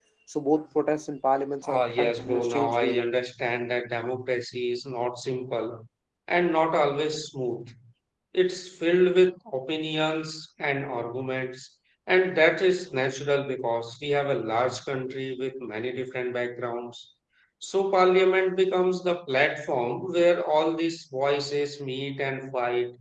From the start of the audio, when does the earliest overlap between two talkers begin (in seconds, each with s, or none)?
1.6 s